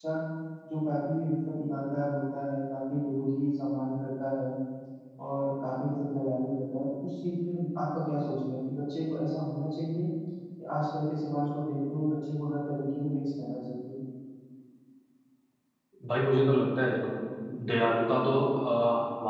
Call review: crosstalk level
none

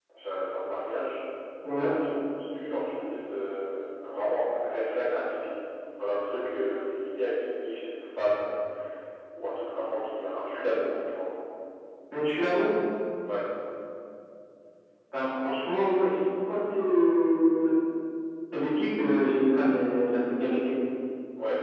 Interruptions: none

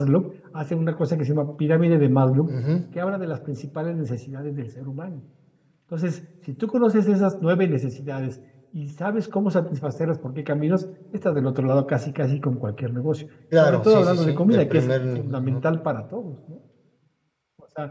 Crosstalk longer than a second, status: present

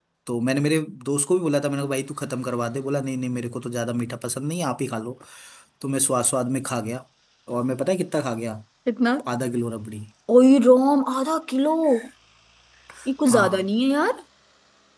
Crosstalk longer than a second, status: none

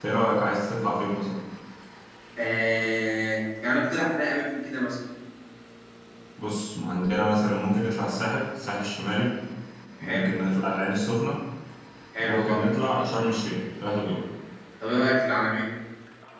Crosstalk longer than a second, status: none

